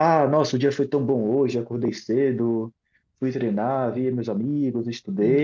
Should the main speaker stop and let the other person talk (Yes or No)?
No